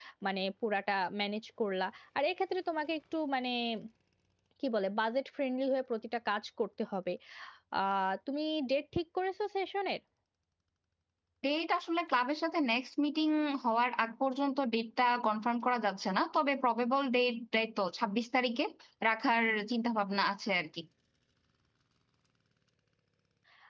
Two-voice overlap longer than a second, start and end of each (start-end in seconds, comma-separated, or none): none